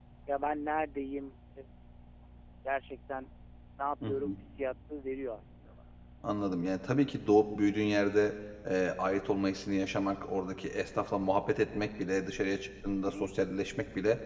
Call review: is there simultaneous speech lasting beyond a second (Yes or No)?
No